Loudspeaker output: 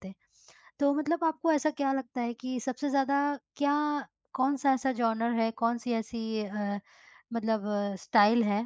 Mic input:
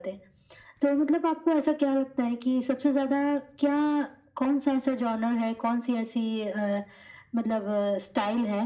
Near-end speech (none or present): none